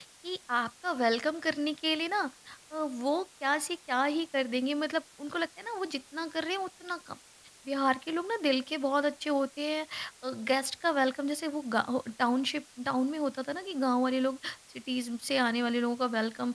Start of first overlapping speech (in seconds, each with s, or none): none